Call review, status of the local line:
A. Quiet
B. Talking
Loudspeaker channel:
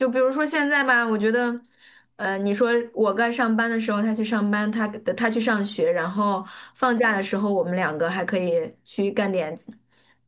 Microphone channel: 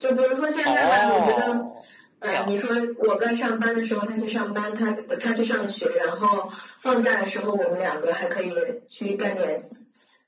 B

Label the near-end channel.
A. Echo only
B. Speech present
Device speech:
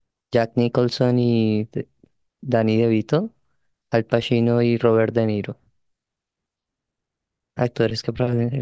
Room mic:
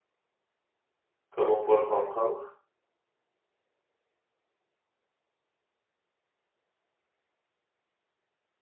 B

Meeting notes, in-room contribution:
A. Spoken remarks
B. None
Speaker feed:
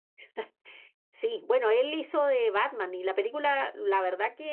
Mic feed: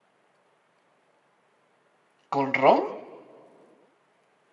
A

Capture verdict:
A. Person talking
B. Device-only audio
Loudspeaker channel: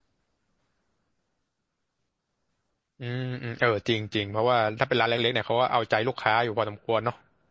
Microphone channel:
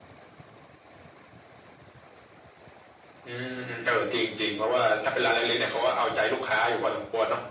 B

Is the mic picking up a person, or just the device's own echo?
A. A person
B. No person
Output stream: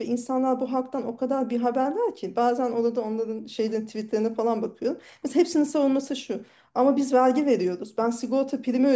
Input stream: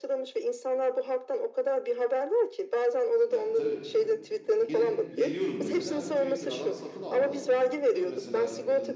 A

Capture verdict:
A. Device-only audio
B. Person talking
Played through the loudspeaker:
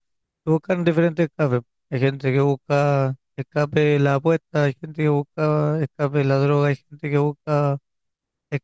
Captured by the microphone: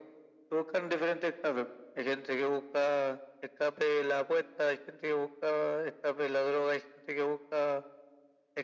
A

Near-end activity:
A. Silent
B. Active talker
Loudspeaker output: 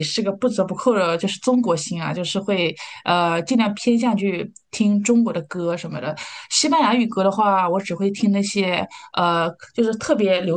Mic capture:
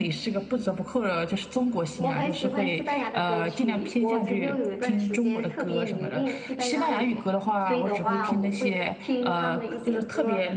B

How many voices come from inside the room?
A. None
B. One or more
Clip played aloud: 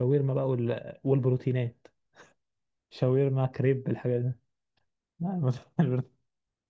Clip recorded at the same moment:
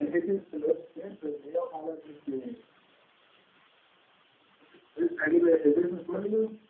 B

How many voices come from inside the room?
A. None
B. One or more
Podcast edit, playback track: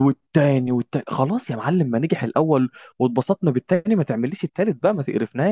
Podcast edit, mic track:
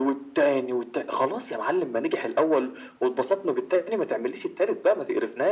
A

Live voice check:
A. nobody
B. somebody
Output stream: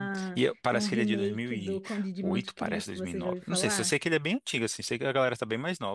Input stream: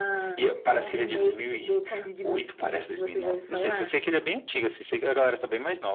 A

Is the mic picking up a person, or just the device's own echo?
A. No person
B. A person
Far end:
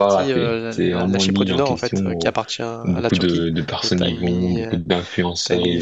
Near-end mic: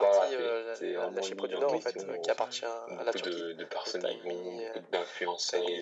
B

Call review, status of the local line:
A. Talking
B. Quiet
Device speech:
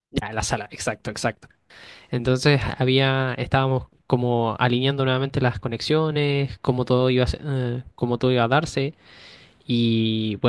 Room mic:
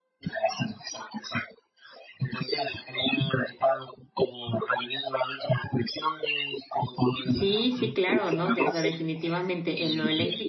A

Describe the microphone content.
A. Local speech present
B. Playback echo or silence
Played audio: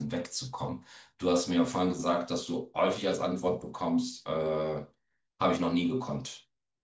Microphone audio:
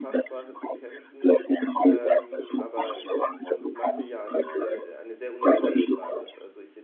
A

